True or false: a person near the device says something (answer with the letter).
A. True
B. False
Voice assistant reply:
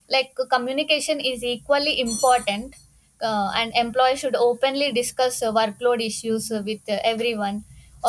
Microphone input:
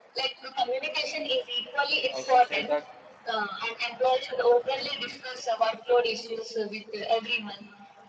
A